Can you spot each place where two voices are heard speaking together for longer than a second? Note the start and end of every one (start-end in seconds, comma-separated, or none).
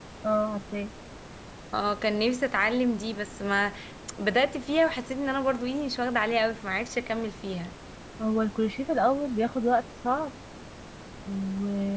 none